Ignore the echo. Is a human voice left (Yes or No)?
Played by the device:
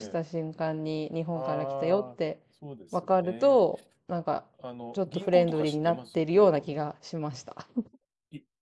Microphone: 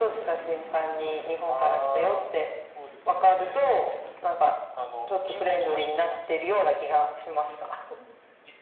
No